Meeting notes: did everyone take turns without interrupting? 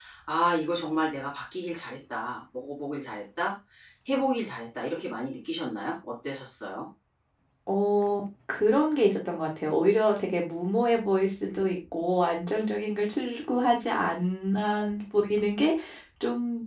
Yes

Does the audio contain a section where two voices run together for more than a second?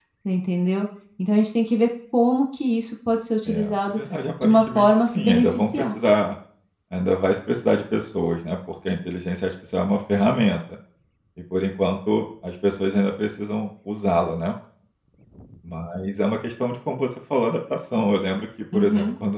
Yes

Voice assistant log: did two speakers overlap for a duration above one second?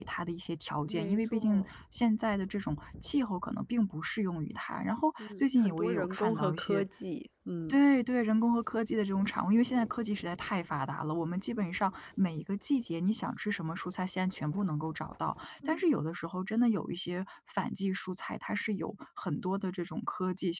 Yes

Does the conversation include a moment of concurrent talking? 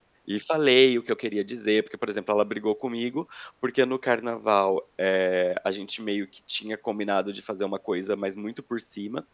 No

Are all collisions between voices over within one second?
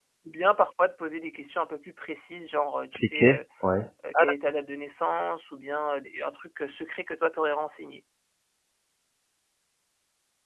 Yes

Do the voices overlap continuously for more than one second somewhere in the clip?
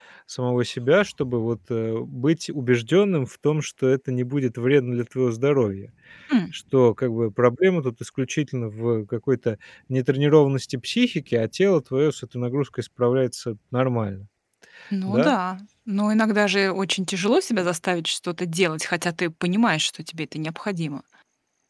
No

